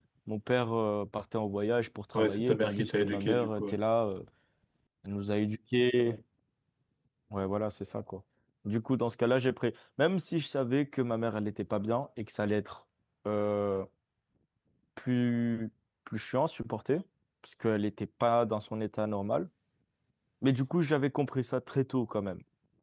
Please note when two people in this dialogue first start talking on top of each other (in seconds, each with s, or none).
2.1 s